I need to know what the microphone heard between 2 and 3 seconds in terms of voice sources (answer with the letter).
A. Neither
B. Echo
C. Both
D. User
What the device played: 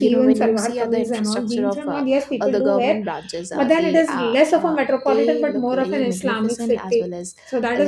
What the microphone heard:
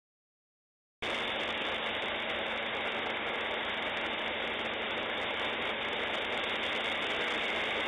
A